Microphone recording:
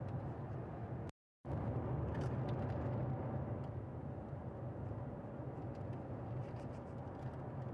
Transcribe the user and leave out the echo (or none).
none